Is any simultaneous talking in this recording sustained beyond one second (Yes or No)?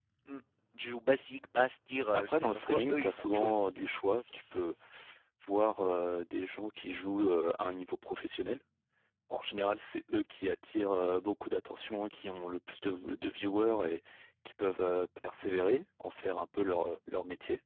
Yes